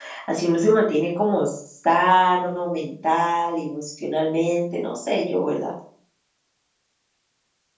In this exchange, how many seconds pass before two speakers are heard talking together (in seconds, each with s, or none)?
none